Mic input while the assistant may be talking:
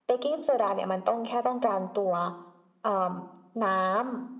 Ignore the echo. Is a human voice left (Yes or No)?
No